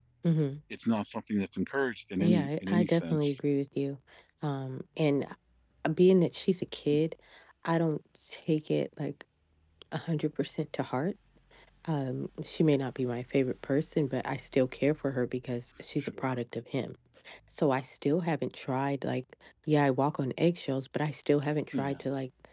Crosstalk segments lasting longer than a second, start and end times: 2.2-3.4

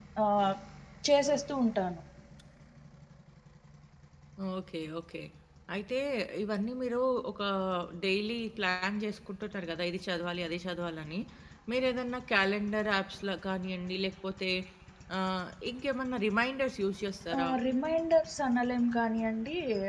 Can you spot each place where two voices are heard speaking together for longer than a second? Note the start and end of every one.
none

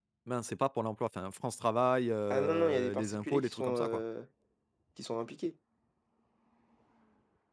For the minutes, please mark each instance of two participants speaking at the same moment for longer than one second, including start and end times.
2.3-4.0

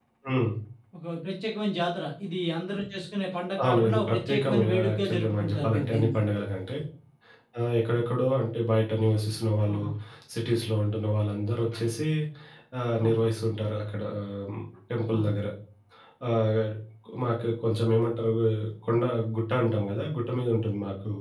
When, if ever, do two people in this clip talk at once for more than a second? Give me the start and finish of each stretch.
3.6-6.2

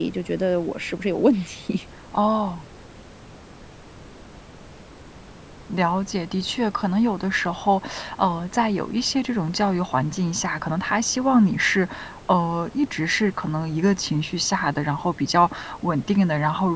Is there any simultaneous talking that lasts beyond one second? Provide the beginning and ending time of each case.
none

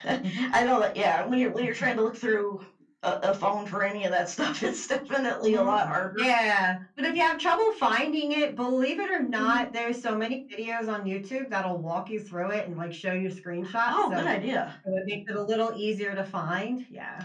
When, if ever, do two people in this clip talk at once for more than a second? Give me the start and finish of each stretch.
none

